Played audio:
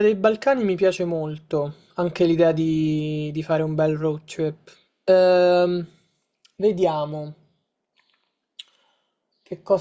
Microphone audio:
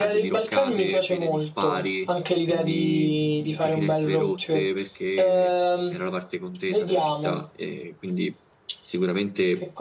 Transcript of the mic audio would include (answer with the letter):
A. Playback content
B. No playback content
A